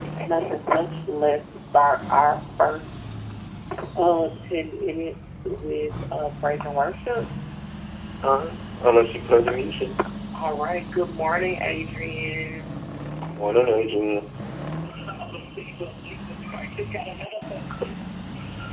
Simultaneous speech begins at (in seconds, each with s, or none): none